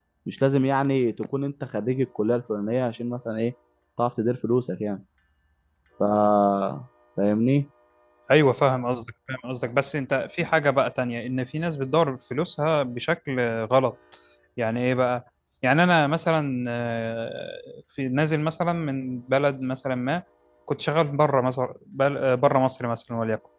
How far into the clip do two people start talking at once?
none

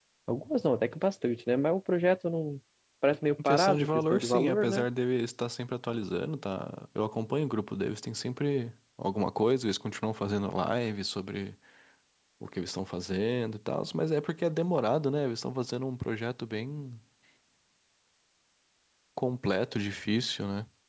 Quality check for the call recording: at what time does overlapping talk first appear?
3 s

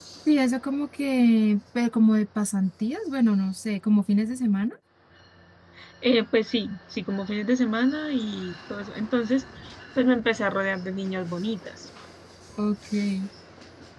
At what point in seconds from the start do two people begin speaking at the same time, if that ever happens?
none

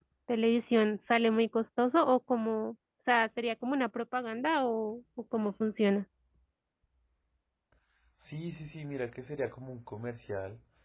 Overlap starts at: none

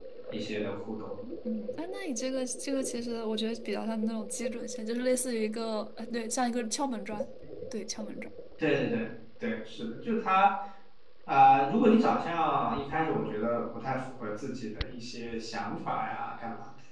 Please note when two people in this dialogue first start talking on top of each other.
none

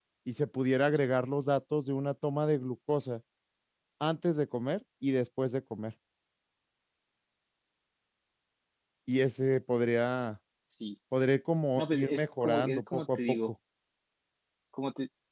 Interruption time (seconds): 12 s

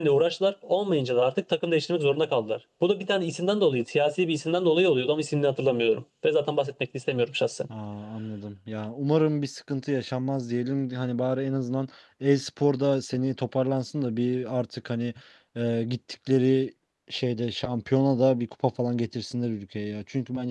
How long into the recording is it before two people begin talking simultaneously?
none

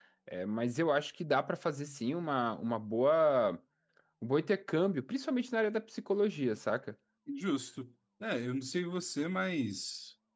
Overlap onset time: none

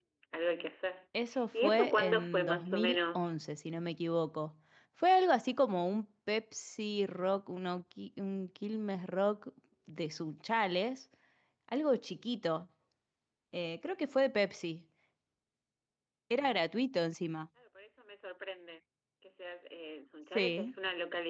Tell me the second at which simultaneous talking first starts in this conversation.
2 s

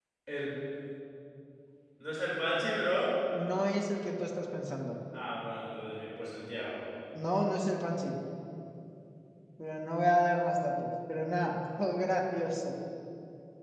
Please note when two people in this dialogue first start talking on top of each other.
none

